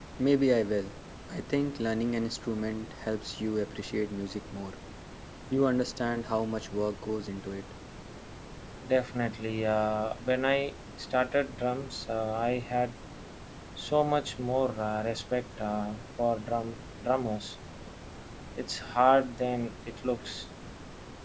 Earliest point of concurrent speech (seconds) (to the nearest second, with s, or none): none